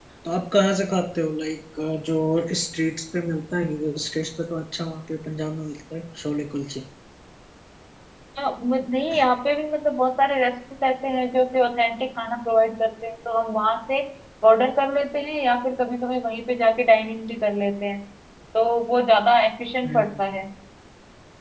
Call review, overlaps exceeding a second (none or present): none